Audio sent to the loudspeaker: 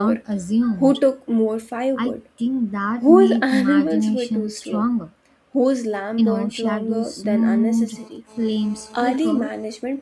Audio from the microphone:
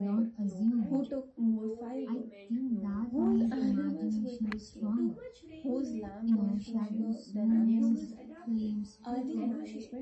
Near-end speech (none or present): present